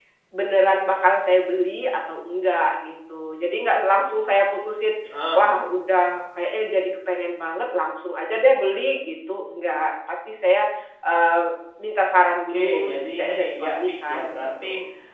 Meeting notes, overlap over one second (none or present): present